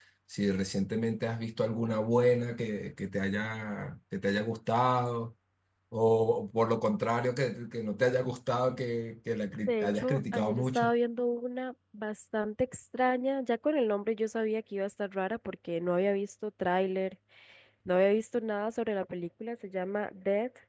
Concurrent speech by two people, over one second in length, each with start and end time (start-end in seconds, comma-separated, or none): 9.7-10.9